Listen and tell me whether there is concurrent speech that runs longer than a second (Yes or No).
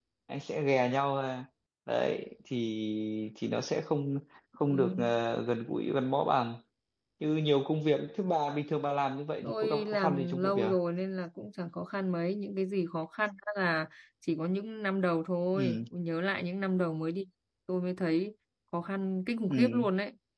Yes